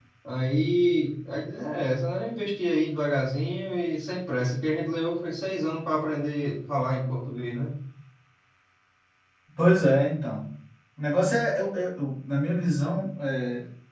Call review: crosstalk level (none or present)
none